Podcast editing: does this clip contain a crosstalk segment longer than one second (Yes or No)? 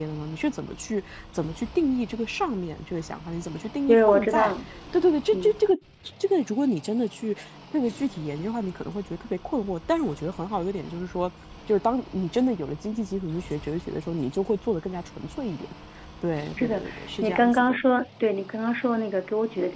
Yes